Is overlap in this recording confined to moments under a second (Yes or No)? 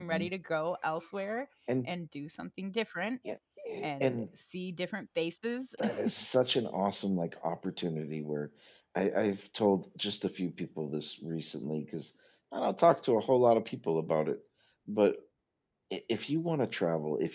Yes